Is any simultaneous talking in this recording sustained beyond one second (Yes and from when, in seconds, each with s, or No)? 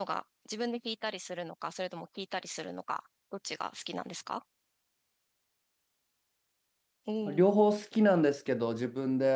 No